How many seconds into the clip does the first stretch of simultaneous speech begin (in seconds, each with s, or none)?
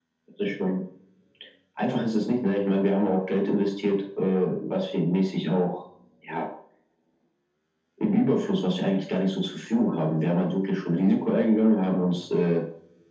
none